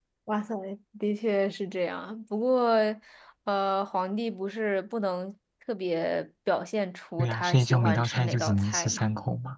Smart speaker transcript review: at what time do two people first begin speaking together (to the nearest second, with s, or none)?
7 s